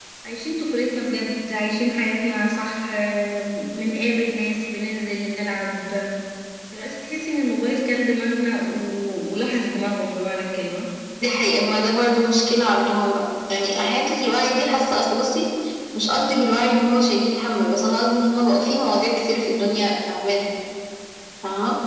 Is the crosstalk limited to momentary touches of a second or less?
Yes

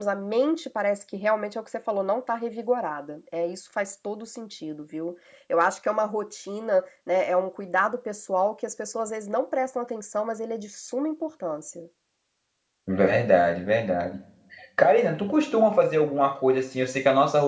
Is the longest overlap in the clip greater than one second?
No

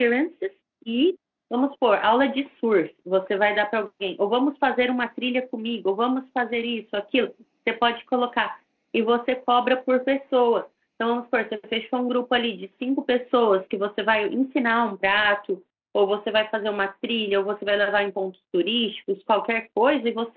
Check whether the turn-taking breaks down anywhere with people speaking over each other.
No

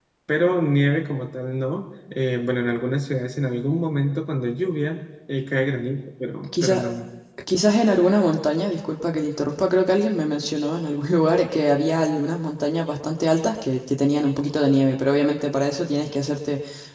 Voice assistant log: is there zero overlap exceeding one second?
Yes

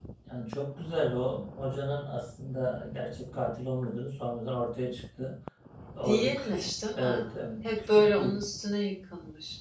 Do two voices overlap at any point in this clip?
Yes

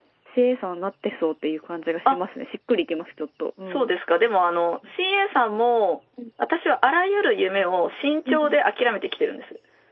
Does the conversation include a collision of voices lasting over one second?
No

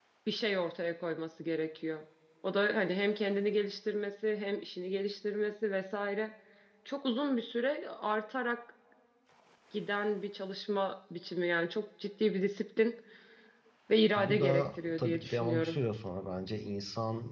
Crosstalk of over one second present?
Yes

